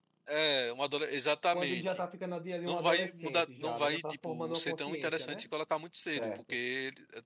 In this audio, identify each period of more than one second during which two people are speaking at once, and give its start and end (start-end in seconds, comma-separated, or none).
2.7-5.5